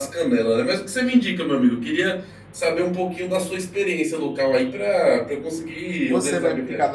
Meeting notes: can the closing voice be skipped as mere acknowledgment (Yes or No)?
No